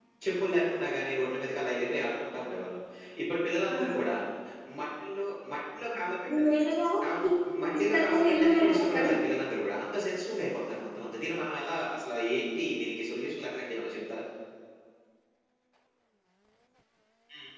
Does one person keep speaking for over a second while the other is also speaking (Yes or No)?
Yes